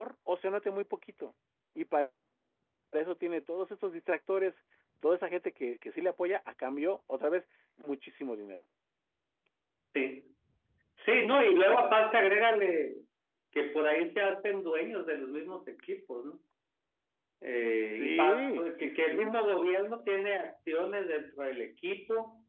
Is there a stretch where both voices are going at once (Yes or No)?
Yes